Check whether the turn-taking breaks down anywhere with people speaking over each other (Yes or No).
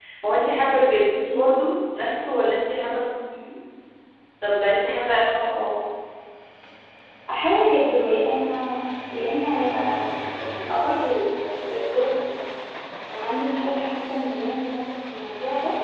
No